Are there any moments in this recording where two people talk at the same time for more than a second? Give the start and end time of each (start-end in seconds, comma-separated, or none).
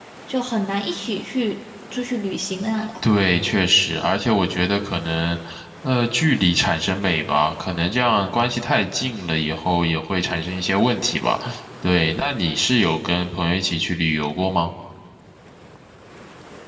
none